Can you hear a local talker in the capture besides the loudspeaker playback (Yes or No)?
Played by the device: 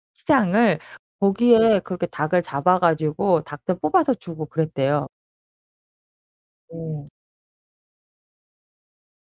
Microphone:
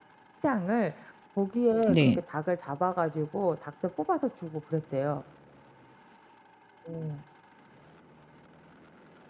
Yes